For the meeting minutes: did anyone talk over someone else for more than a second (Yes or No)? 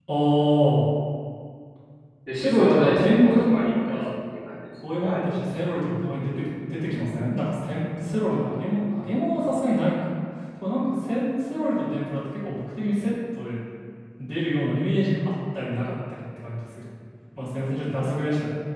Yes